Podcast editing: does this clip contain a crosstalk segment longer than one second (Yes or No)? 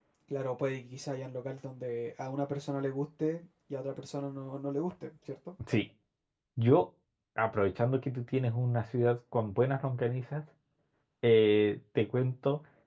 No